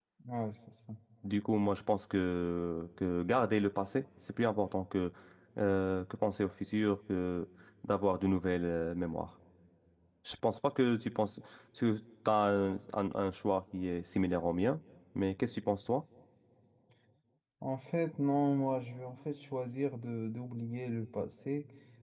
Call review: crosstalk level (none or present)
none